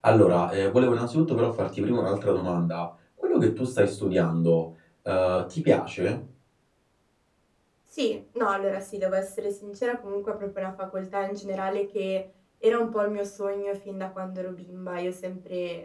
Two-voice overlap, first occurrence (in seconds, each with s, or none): none